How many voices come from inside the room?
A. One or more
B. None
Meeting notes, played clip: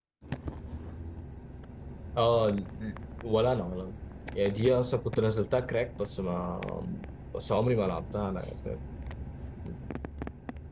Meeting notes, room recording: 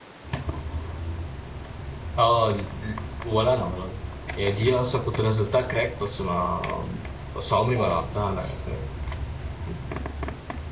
A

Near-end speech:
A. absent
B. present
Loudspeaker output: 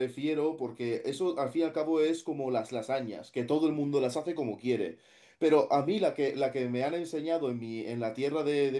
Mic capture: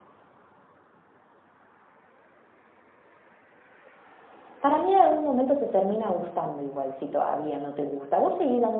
B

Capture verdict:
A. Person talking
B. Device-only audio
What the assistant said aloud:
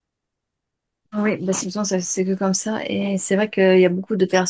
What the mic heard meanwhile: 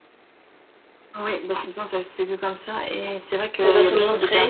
A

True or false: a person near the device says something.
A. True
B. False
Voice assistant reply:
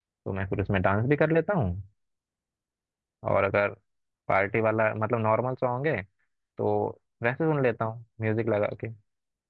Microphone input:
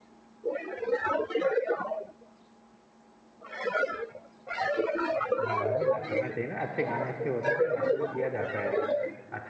A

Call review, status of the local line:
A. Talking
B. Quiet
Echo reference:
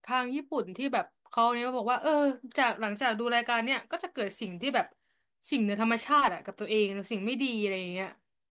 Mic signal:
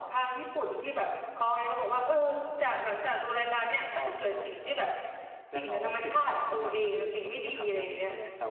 A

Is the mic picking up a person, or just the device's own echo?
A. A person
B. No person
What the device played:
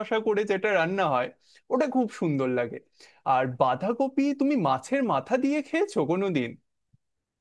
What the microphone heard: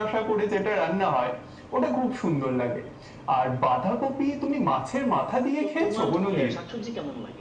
A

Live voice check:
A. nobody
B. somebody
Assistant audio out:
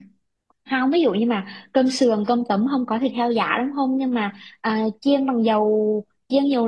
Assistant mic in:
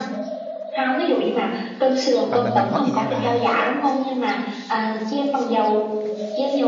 B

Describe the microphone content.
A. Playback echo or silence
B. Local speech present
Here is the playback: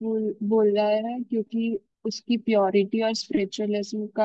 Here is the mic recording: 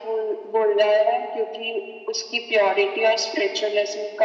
A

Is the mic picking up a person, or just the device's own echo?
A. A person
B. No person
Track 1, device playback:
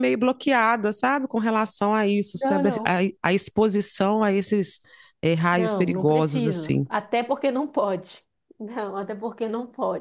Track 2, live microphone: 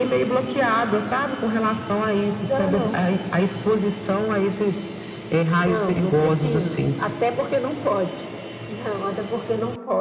B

